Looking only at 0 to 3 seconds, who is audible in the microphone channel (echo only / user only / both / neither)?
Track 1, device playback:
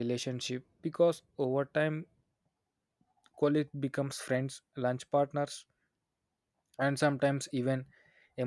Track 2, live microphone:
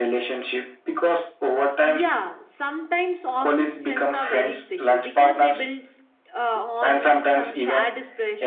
both